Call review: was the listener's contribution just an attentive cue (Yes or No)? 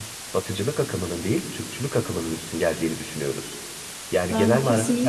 No